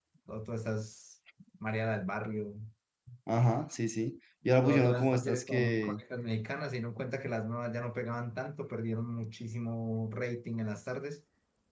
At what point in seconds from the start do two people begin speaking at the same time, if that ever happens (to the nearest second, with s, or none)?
5 s